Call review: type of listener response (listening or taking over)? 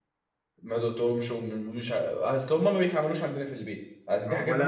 taking over